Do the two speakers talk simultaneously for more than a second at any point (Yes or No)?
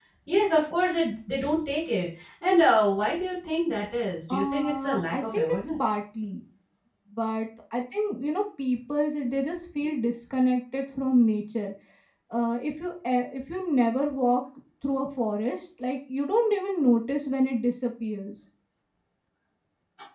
Yes